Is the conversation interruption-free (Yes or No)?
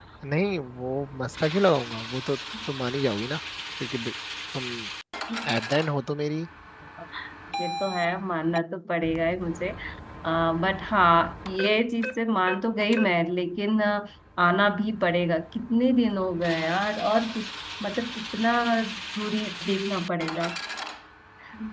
Yes